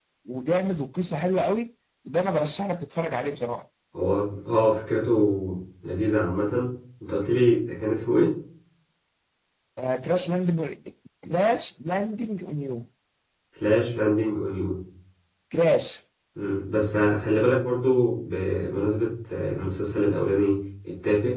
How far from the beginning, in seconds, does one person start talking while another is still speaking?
none

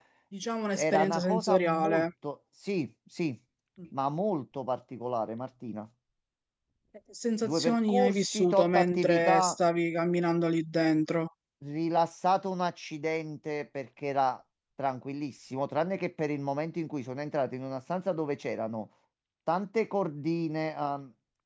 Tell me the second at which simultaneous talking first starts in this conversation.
0.8 s

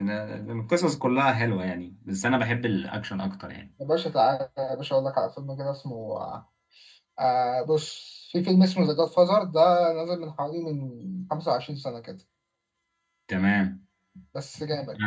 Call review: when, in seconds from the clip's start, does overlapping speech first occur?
none

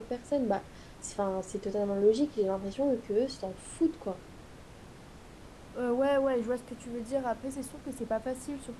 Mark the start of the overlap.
none

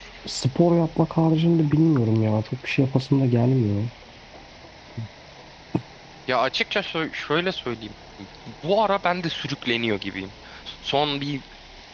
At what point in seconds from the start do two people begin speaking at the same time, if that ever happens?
none

